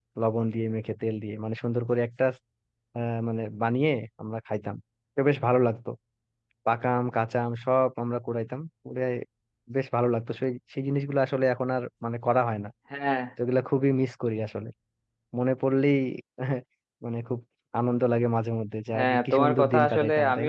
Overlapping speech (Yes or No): Yes